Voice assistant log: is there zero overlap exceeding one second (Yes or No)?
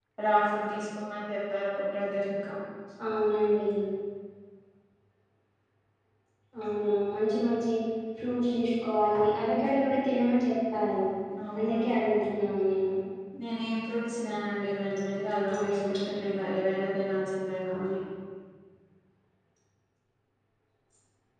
Yes